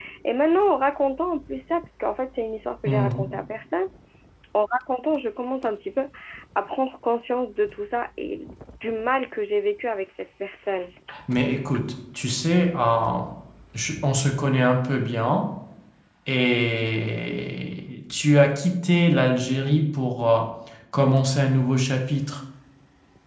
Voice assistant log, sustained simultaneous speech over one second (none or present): none